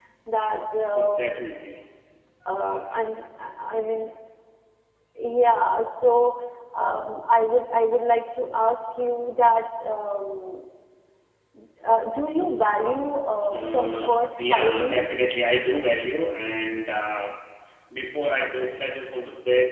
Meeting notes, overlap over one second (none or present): present